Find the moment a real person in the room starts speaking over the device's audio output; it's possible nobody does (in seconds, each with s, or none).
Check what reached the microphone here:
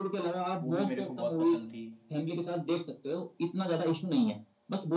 0.6 s